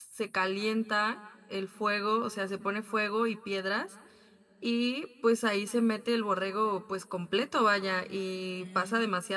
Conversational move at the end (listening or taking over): listening